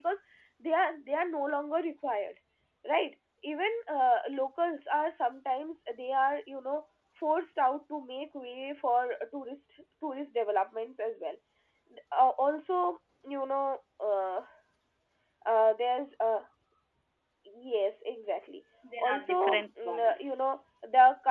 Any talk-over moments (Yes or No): Yes